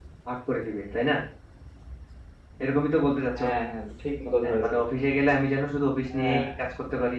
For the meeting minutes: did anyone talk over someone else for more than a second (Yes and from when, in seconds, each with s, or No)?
No